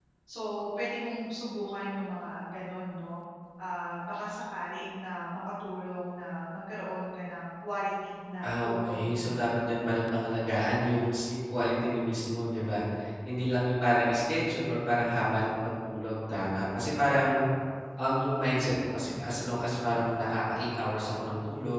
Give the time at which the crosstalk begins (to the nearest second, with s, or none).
8 s